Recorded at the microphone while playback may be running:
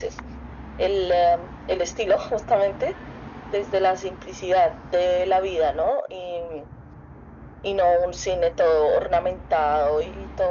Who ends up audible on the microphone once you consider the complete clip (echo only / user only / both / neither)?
echo only